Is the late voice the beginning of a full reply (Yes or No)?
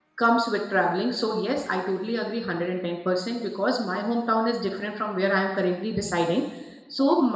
No